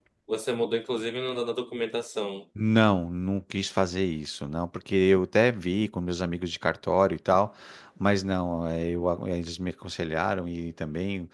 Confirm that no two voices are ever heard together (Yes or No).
Yes